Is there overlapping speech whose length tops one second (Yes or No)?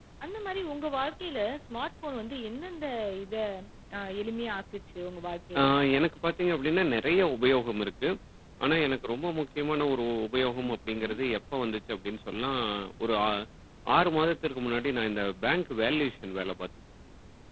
No